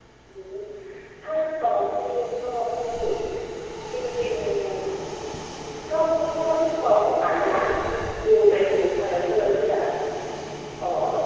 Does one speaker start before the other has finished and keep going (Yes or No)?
No